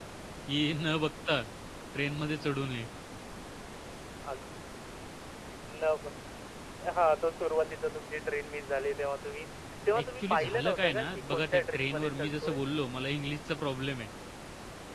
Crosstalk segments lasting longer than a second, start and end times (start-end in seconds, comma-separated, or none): 10.0-12.6